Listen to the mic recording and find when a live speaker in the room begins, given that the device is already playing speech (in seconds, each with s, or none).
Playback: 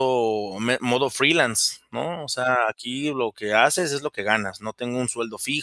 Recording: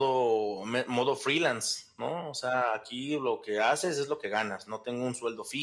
none